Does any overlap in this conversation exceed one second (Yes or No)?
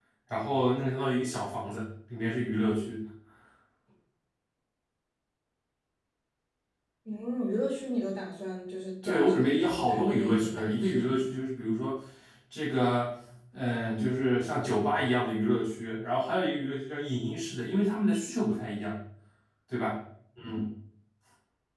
Yes